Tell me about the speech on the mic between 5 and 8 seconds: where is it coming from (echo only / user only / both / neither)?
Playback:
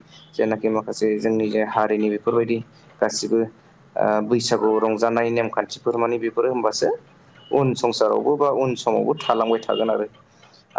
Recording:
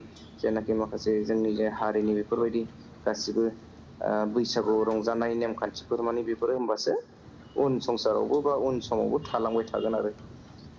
echo only